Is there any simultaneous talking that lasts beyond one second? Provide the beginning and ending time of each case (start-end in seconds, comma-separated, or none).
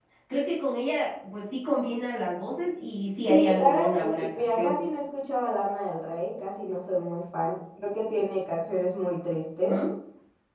3.2-4.8